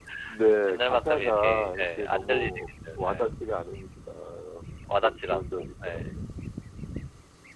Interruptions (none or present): present